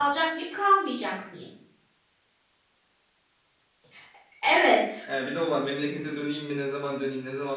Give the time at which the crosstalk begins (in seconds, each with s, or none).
none